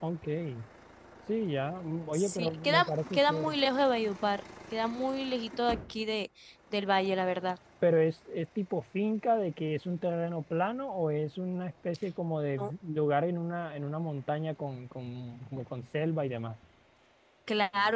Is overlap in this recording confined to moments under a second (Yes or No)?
No